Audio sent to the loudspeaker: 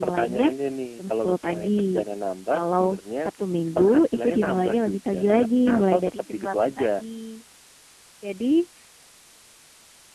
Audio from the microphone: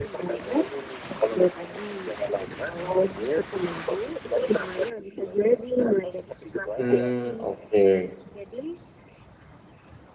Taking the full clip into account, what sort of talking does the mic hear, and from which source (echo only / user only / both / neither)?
both